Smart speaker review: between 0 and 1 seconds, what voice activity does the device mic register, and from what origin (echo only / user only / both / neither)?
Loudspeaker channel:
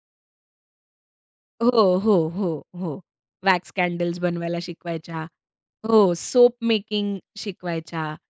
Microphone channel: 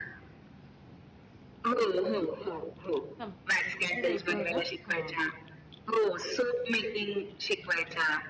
neither